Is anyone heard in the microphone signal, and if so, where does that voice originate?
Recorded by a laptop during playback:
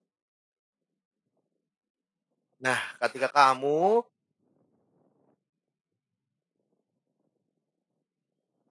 user only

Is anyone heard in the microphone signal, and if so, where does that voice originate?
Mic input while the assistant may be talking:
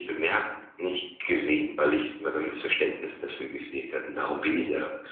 echo only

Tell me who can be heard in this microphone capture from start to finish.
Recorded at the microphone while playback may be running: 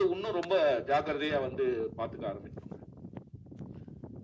echo only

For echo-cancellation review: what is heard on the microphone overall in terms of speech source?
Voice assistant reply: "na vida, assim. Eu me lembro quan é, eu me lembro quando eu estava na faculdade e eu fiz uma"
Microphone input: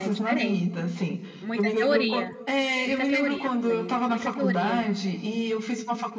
both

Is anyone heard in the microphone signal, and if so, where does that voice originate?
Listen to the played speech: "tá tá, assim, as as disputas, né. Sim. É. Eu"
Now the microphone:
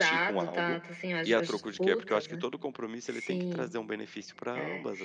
both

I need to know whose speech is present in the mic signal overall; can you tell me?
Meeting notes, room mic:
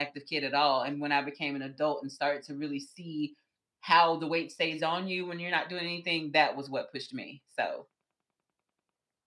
user only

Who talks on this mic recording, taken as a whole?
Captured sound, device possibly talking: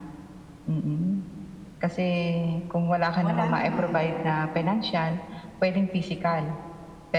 both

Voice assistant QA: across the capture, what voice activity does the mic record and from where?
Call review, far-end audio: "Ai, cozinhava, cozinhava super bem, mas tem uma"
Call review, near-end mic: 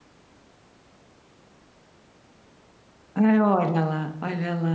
user only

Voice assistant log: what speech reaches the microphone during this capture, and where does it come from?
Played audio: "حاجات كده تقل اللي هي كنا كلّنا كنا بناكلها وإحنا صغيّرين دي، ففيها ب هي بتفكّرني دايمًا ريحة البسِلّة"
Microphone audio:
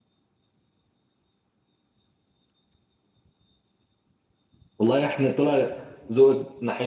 user only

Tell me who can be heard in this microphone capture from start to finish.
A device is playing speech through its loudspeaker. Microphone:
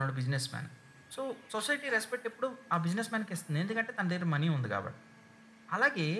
echo only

